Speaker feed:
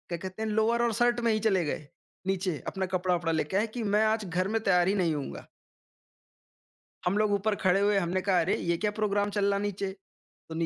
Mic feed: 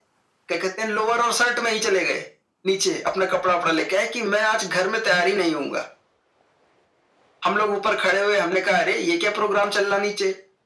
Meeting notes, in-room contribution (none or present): none